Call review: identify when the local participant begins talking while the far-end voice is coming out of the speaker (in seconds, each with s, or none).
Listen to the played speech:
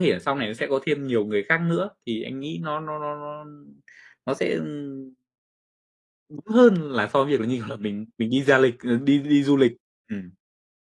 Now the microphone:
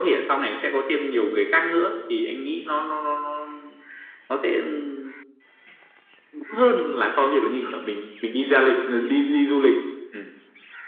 none